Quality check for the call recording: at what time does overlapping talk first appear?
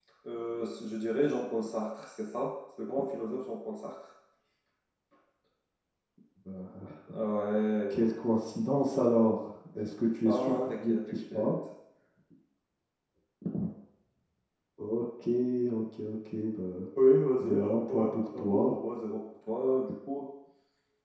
10.2 s

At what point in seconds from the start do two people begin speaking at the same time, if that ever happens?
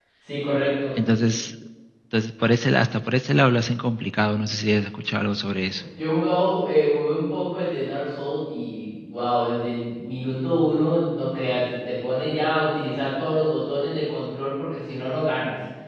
none

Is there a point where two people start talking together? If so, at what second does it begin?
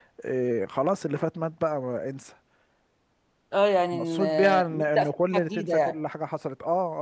3.9 s

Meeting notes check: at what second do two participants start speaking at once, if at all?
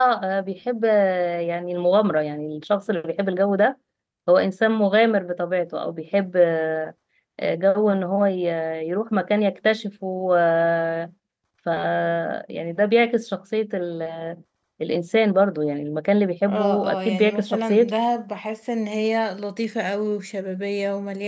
16.5 s

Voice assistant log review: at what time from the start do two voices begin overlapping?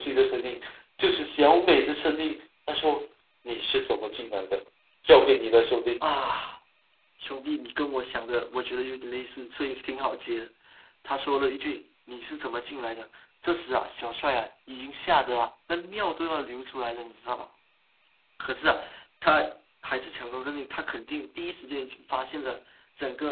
none

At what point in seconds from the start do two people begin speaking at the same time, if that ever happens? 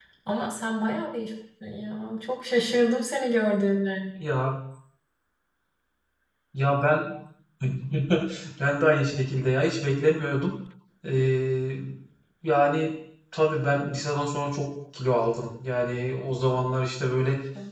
none

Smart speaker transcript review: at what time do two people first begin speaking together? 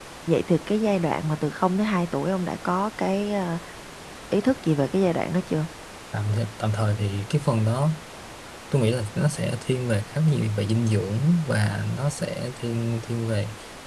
none

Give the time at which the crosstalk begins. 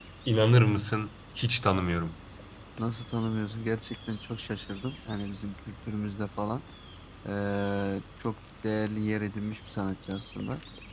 none

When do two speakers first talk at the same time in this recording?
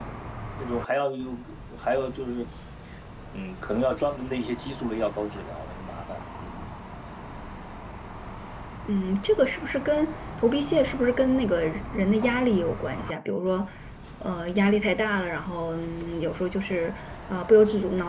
none

